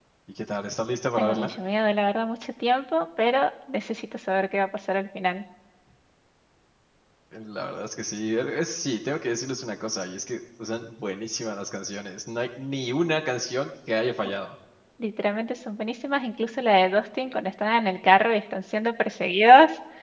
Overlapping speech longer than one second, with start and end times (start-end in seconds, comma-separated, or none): none